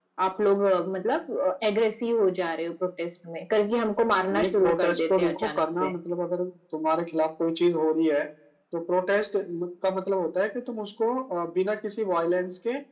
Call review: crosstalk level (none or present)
present